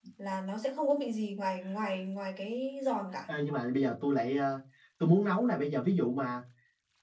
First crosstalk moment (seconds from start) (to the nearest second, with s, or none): none